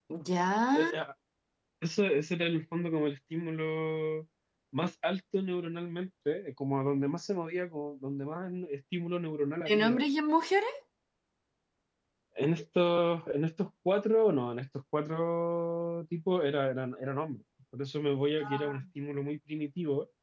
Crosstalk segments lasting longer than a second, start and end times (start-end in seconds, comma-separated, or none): none